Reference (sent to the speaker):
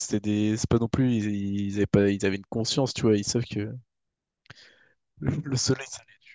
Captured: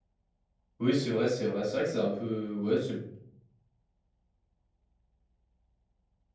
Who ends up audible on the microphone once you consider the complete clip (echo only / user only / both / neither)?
user only